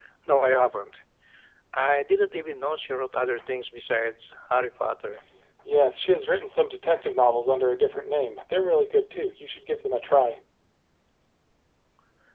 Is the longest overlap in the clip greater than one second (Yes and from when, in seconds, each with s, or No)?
No